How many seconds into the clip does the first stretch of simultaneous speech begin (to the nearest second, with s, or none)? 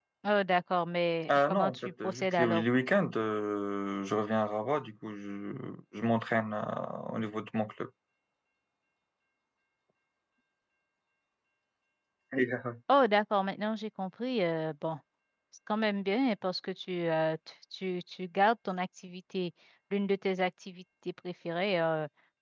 1 s